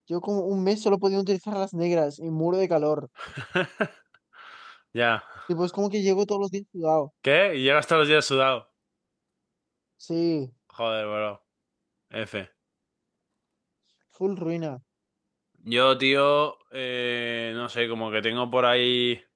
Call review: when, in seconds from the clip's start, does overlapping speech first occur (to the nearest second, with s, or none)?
none